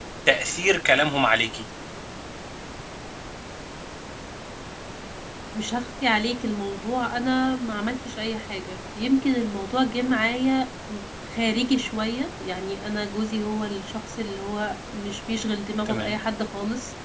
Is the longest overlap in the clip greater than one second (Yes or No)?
No